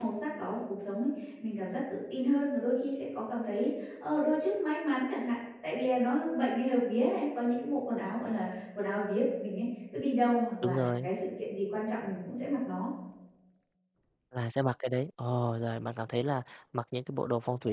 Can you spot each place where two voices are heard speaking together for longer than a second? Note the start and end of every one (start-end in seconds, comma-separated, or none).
none